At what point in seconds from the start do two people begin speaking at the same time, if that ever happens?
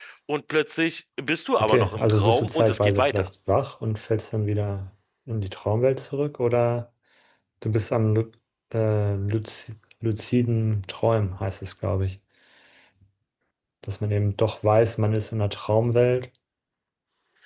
1.6 s

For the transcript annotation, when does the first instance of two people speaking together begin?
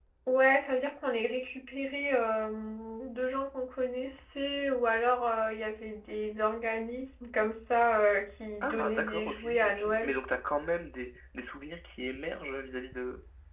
8.6 s

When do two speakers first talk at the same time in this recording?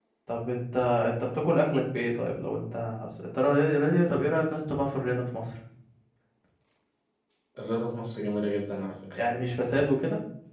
none

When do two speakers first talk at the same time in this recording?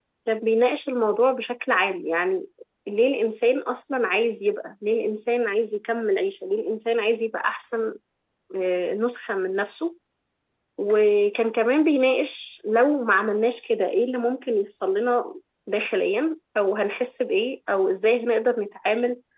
none

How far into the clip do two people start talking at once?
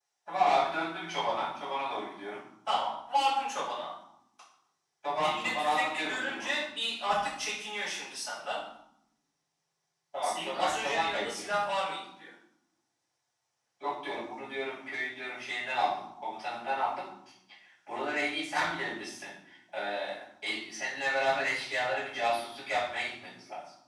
5.2 s

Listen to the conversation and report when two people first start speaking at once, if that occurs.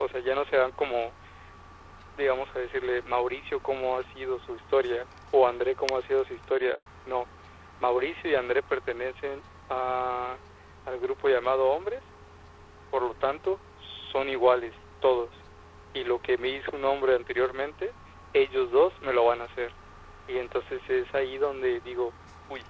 none

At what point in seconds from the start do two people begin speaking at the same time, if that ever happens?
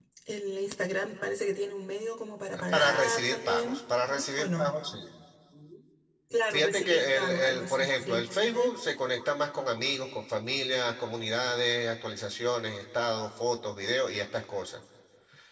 2.7 s

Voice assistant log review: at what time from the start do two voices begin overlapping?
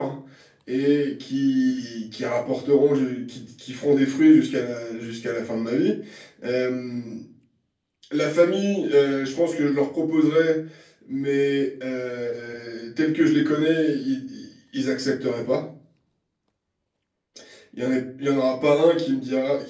none

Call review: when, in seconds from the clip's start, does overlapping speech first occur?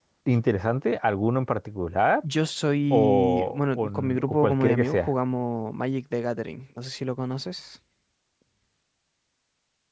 2.9 s

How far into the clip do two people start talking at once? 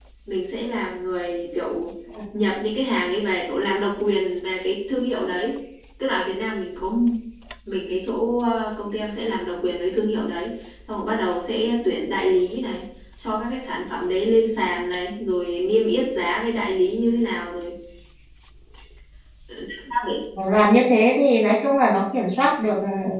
none

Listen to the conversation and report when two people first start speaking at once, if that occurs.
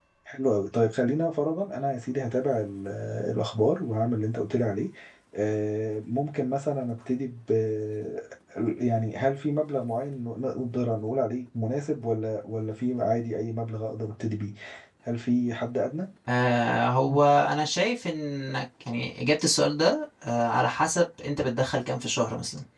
none

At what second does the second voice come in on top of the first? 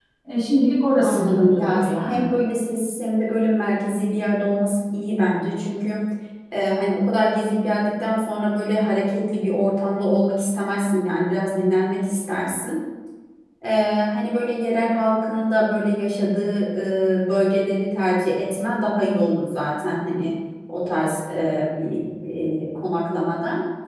1.0 s

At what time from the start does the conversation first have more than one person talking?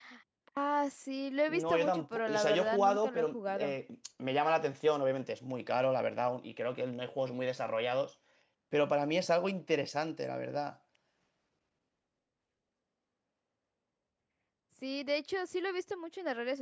1.5 s

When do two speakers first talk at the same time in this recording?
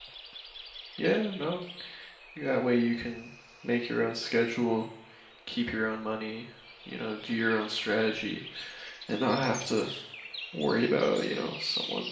none

